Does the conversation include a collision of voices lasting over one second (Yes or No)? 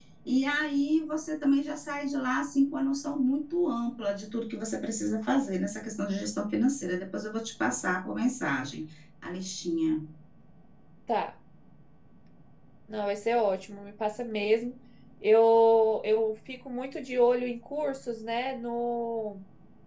No